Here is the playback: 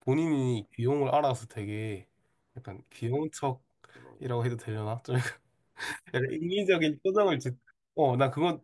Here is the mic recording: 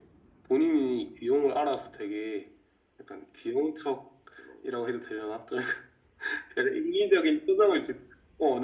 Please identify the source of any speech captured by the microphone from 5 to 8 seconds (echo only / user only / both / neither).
echo only